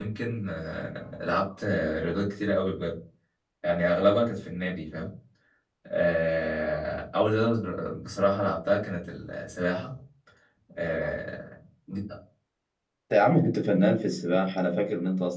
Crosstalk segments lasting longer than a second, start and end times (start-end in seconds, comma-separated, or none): none